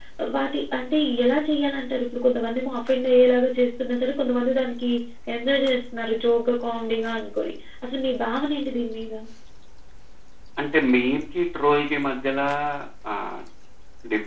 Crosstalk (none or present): none